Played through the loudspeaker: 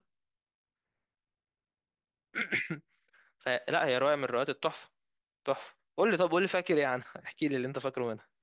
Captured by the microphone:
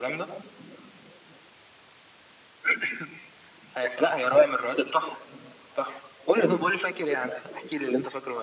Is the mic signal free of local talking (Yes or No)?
Yes